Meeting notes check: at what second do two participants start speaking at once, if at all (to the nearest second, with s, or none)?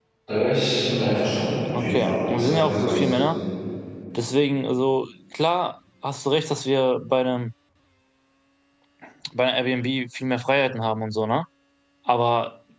2 s